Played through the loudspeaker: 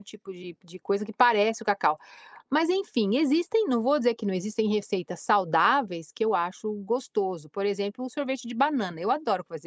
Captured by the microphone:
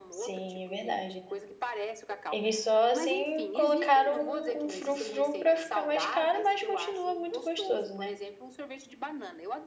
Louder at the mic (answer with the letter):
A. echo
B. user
B